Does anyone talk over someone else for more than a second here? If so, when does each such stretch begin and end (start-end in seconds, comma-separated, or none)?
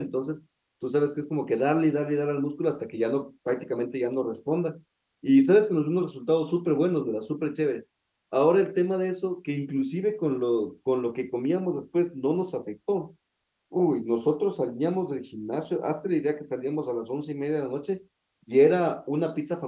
none